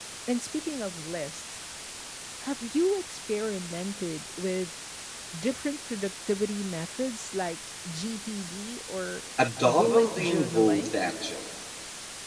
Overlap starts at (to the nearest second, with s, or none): 10 s